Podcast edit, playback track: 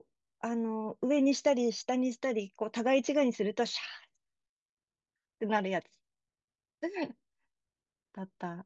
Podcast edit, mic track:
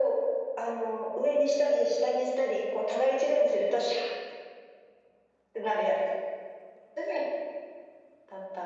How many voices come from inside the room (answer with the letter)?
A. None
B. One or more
A